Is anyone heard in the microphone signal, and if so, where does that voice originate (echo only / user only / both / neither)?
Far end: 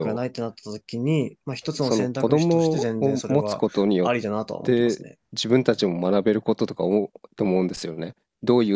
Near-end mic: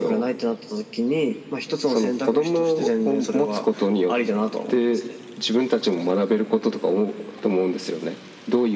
echo only